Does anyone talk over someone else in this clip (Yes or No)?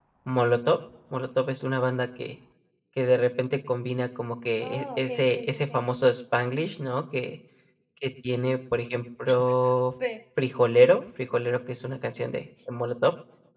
Yes